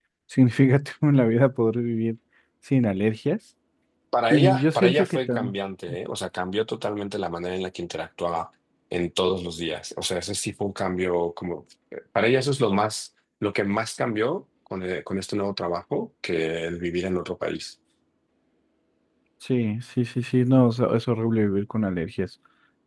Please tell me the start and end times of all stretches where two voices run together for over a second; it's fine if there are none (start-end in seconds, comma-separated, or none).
4.3-5.5